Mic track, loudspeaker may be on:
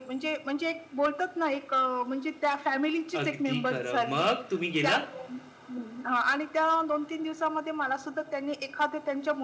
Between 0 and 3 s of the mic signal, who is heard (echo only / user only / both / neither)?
echo only